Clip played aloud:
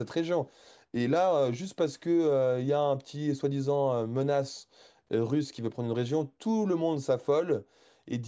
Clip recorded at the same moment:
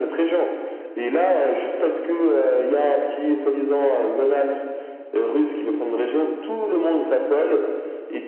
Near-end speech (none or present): none